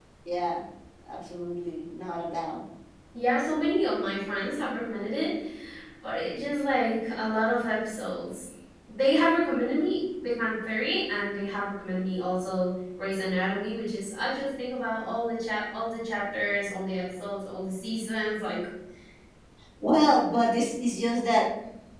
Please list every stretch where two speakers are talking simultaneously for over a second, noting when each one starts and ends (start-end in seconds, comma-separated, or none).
none